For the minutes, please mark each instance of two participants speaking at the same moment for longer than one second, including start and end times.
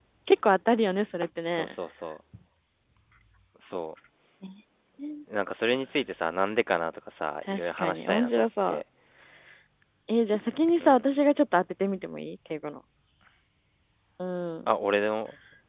7.5-8.8

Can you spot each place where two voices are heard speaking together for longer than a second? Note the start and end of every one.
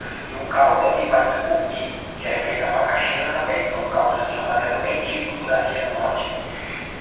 none

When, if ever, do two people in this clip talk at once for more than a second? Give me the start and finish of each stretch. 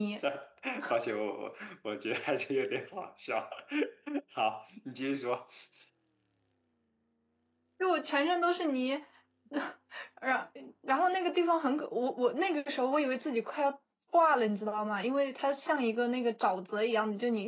none

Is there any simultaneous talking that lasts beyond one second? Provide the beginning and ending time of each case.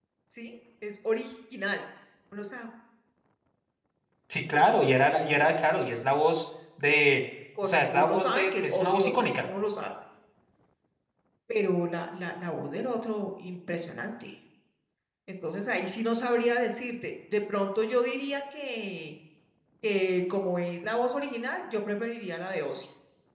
7.6-9.5

